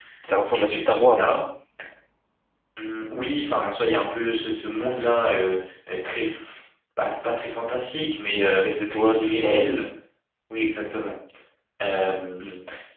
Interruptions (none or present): present